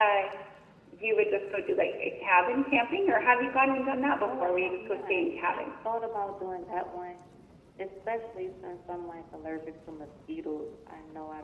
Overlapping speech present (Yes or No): Yes